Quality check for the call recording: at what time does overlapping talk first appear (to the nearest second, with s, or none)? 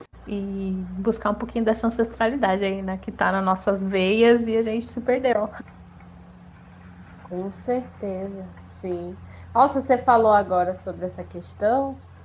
none